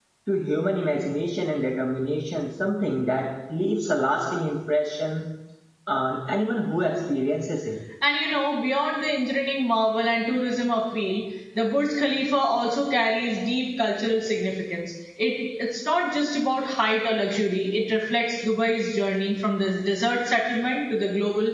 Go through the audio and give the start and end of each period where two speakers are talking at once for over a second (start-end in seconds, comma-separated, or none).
none